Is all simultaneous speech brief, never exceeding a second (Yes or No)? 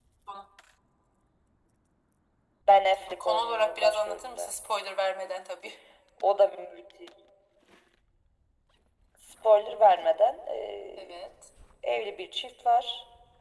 No